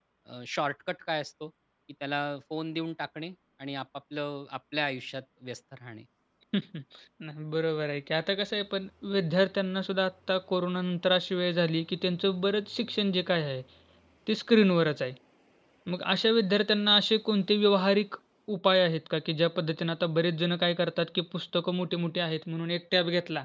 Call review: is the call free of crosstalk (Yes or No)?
Yes